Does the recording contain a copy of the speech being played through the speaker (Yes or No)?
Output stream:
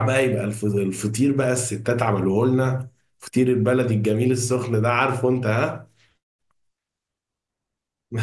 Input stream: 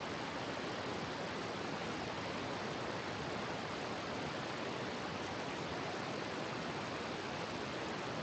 No